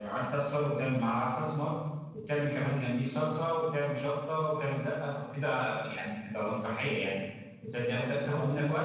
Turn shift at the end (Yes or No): No